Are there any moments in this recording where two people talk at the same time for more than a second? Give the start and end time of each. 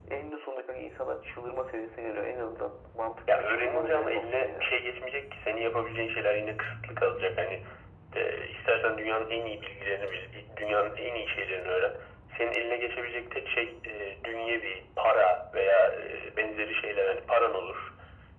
3.3-4.7

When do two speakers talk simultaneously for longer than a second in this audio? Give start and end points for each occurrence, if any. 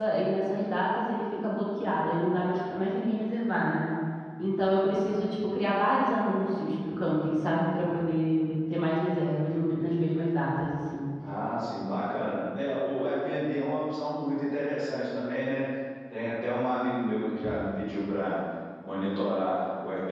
none

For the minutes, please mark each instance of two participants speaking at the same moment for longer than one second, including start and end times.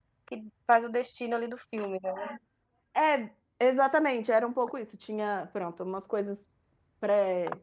none

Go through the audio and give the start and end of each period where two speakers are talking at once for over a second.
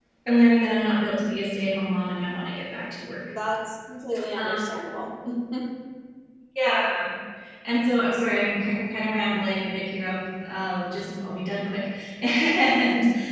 none

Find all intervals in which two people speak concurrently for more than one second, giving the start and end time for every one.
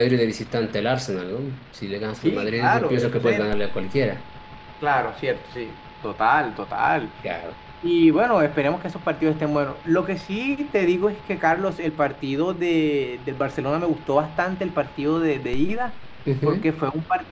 2.2-3.5

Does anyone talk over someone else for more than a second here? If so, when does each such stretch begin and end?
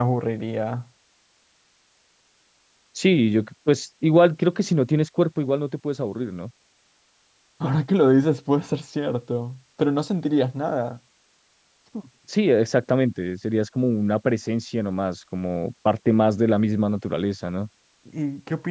none

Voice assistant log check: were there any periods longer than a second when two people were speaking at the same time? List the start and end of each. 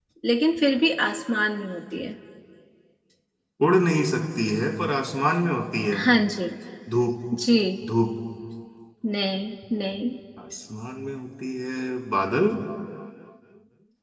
none

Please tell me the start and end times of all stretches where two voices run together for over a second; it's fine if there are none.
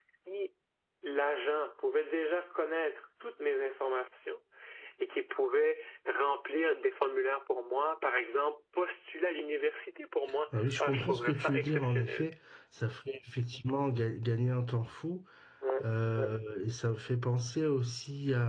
10.8-12.3

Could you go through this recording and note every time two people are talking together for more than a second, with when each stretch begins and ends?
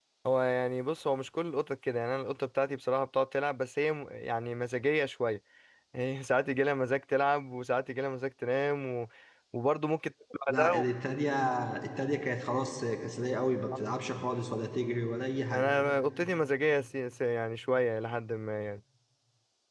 none

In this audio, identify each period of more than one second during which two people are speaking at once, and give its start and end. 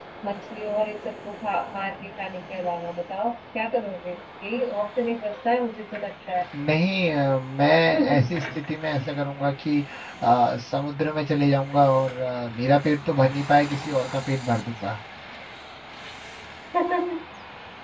none

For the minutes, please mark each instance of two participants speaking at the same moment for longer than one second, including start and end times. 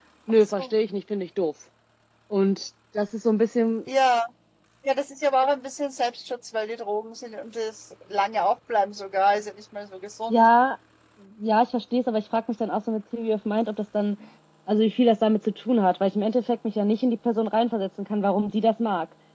none

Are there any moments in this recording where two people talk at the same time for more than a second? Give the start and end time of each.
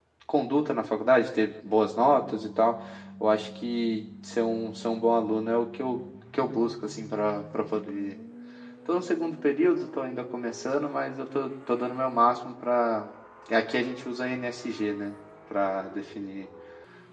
none

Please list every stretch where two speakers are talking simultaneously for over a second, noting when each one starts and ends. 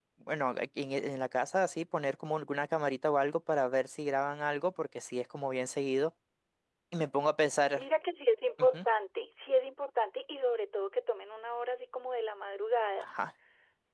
none

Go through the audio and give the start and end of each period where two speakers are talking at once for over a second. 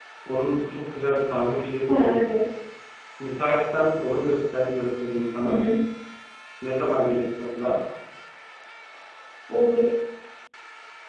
none

